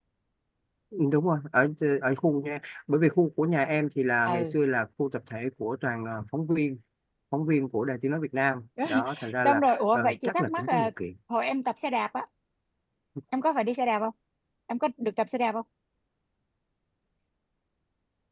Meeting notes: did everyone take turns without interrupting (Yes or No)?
No